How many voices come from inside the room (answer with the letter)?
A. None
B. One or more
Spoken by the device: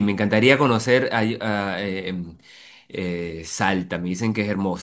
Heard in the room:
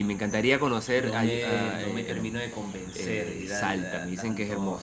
B